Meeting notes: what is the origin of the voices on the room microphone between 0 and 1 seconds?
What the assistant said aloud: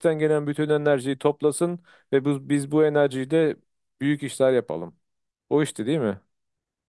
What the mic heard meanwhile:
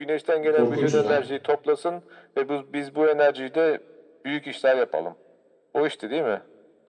both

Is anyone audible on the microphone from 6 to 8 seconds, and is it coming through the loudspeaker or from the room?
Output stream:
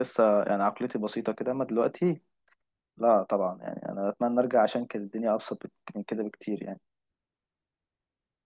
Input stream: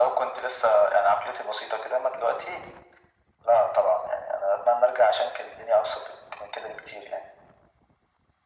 echo only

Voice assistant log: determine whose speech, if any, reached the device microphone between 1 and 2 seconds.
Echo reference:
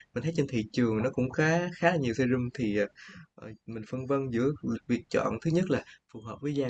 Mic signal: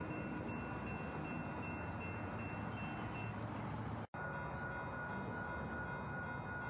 neither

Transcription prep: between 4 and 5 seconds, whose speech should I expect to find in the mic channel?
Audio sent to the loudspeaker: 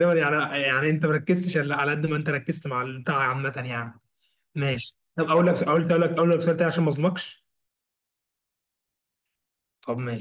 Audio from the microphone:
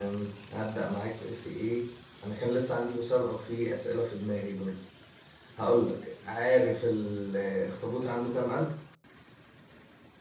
user only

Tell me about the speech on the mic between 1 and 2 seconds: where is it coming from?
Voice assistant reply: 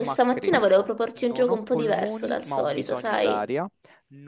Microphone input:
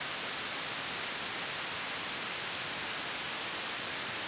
neither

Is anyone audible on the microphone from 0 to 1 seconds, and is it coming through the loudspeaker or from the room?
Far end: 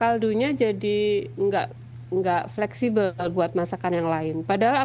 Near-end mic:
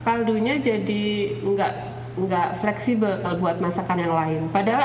echo only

